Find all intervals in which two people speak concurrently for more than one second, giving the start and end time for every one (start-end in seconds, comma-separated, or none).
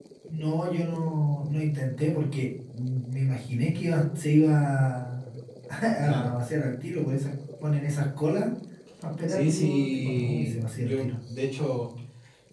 9.3-11.1